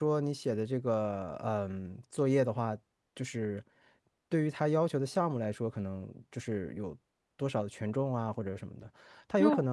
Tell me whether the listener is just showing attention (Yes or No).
Yes